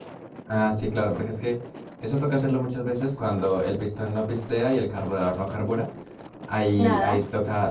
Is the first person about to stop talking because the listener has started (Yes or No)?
No